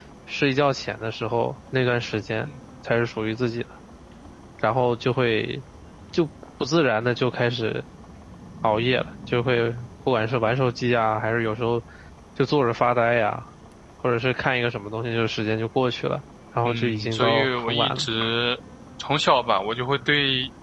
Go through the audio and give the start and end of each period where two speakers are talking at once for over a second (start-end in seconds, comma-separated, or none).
16.6-18.1